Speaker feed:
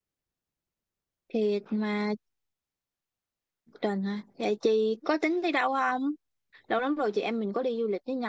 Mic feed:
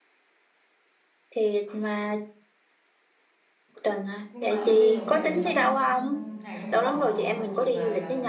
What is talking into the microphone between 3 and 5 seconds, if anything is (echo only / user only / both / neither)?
both